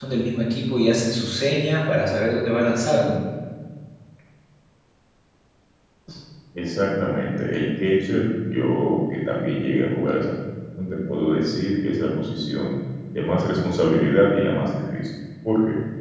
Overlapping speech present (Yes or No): No